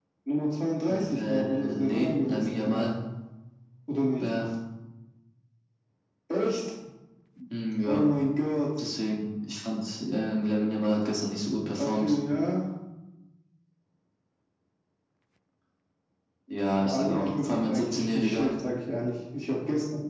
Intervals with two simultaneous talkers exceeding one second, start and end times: 0.9-2.9, 16.8-18.5

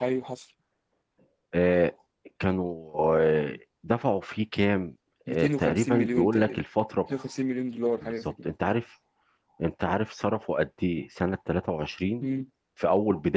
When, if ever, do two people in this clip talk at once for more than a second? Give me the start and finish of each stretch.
5.3-6.6

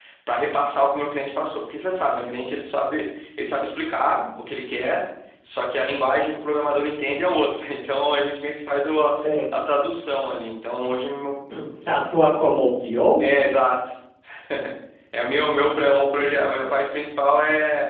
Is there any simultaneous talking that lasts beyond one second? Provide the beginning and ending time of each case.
none

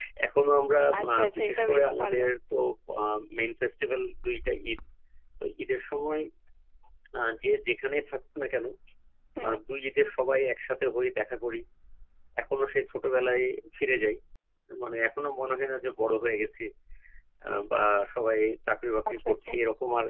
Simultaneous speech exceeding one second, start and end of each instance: 1.0-2.2

